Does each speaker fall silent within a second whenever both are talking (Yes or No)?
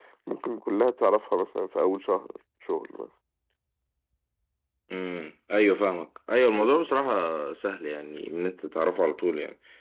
Yes